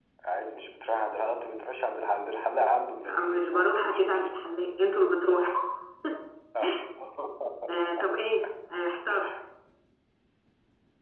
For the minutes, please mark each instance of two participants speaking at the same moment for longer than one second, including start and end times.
3.0-4.3

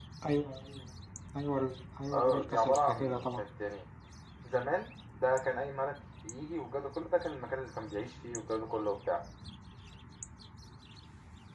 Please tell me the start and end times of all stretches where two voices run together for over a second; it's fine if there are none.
2.1-3.4

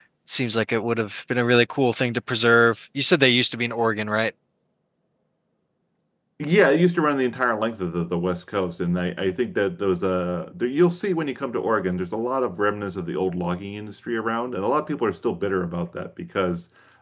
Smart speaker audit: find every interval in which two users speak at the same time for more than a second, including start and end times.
none

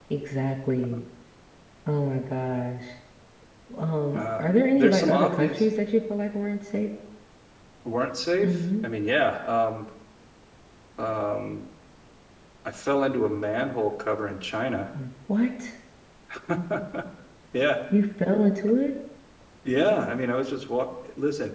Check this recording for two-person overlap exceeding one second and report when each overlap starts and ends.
4.1-5.6

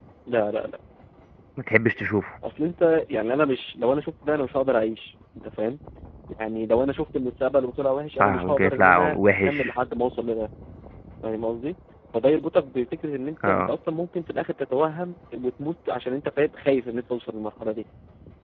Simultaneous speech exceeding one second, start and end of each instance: 8.2-9.7

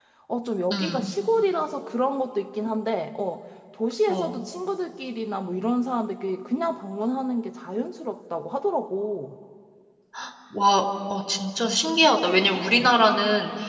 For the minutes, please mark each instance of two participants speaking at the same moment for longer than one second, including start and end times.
none

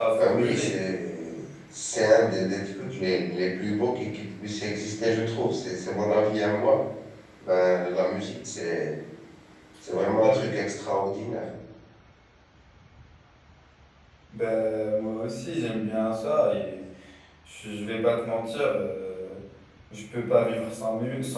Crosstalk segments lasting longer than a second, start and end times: none

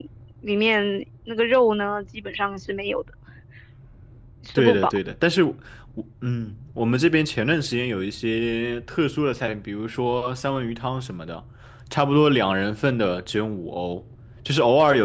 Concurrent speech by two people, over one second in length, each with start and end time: none

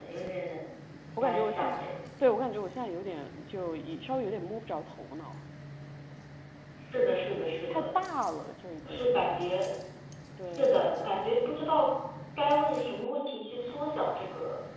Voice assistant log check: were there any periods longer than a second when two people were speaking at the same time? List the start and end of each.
none

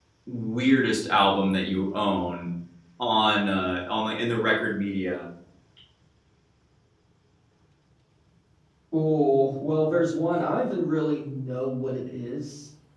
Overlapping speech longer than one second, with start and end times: none

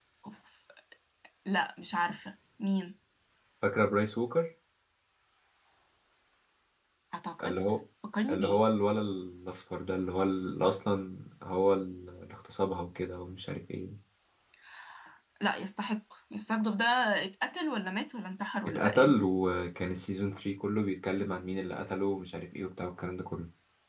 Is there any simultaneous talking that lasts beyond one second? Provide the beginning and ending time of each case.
none

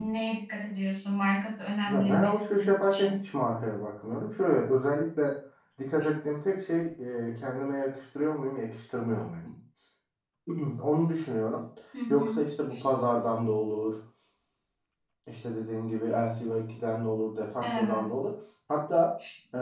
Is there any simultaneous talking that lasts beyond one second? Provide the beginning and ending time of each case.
1.9-3.3

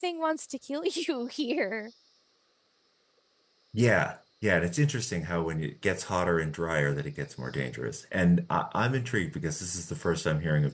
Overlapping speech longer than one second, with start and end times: none

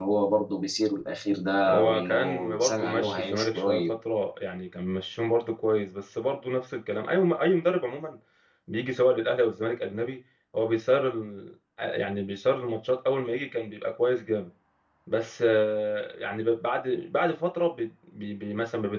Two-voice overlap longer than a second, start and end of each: 1.7-3.8

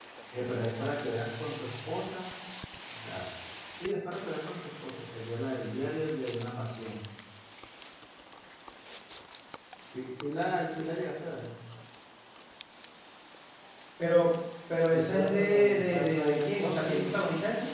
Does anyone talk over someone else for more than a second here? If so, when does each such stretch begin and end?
14.9-17.2

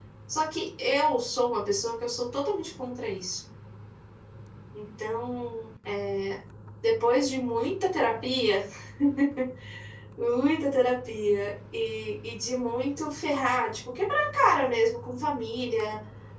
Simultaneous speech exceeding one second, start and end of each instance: none

